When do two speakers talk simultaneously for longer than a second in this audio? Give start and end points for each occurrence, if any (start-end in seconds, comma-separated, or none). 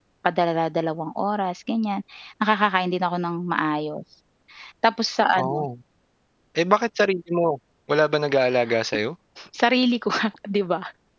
none